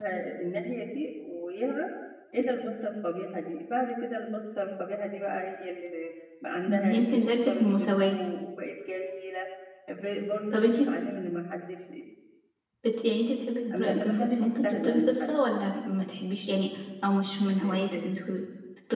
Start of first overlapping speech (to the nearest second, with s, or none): 7 s